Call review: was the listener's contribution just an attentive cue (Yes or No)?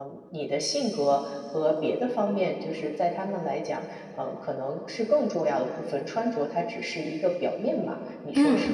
No